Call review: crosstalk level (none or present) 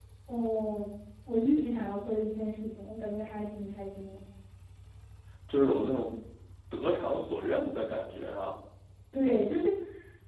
none